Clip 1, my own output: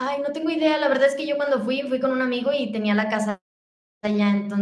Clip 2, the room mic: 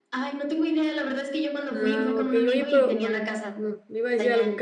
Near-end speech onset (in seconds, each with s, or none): 1.7 s